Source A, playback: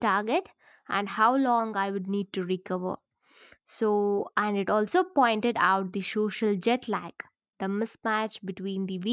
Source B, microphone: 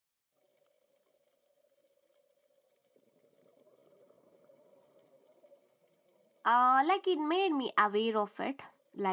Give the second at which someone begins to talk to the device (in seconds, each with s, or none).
6.4 s